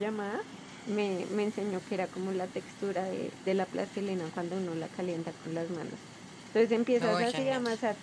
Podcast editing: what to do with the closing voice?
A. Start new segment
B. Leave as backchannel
B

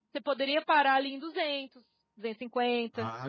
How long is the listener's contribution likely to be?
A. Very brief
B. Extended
B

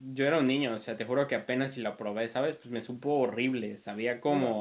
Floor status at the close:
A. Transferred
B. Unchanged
A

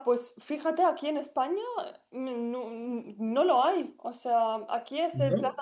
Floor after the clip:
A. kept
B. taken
A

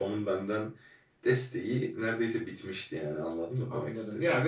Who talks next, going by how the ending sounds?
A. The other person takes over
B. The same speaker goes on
A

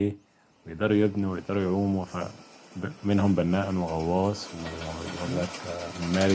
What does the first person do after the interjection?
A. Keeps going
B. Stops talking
A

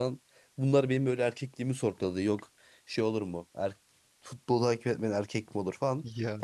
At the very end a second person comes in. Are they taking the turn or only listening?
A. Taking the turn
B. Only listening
B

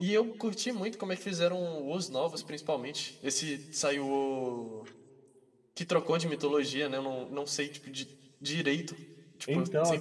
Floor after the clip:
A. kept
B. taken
A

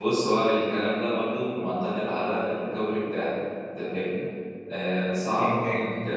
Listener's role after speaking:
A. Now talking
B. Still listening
B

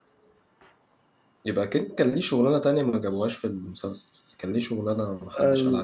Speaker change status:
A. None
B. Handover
B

